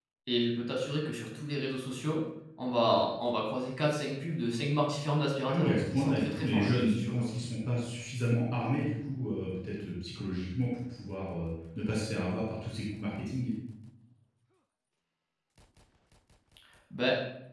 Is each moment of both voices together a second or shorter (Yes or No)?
No